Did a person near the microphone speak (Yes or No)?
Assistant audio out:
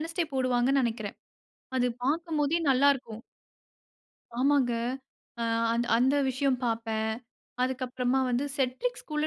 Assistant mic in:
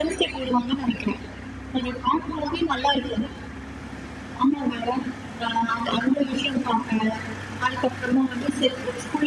No